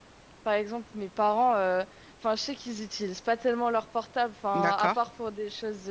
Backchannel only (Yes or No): Yes